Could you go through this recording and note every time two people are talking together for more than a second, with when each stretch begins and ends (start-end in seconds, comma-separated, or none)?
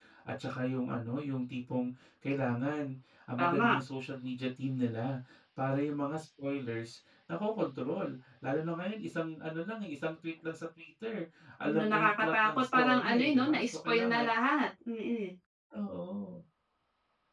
11.6-14.3